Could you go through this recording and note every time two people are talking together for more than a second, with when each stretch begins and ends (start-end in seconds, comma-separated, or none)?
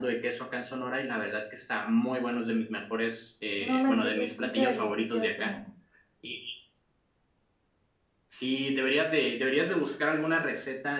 3.6-5.5